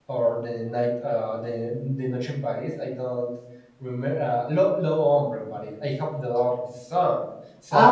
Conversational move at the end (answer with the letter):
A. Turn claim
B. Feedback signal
A